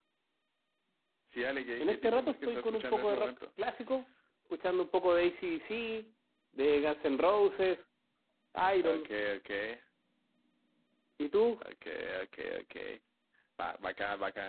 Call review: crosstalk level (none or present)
present